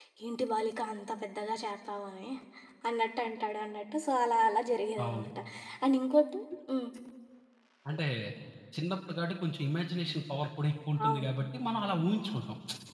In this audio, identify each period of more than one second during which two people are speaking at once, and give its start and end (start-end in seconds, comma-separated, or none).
none